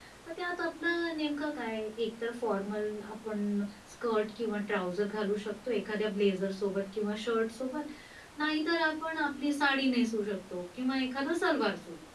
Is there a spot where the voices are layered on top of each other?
No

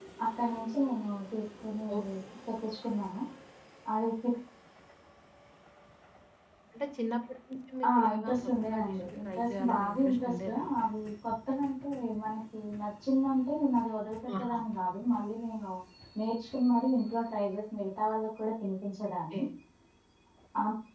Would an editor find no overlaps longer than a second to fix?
No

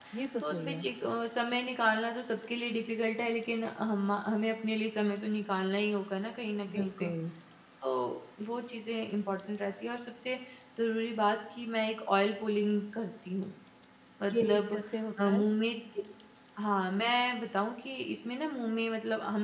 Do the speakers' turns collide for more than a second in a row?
No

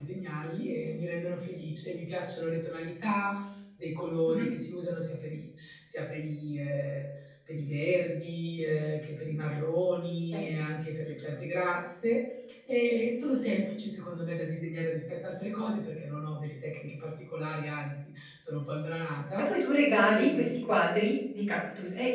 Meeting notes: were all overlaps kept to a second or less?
Yes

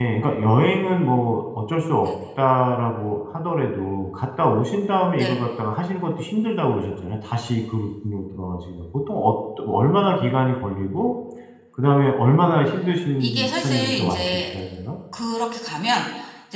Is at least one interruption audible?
Yes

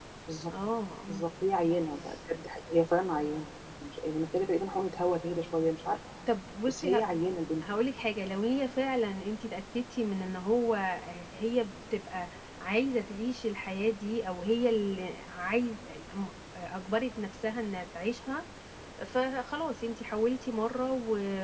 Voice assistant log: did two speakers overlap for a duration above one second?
No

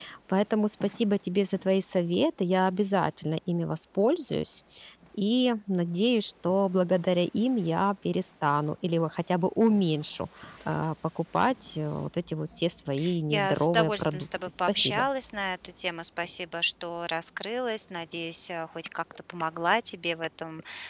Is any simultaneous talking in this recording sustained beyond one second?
Yes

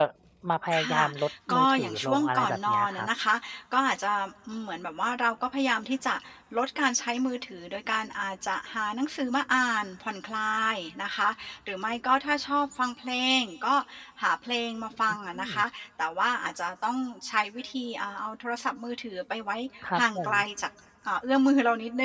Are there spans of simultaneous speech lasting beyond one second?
Yes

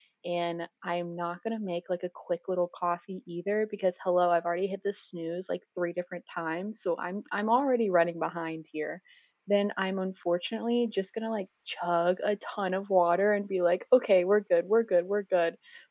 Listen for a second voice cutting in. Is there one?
No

